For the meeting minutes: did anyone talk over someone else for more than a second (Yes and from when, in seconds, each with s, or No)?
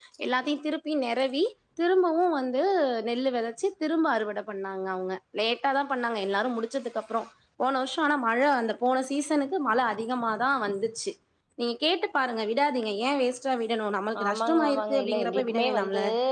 Yes, from 14.1 s